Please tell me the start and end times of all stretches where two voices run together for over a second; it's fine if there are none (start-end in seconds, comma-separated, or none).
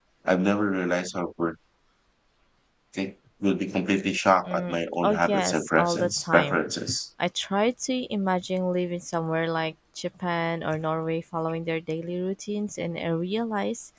5.0-6.6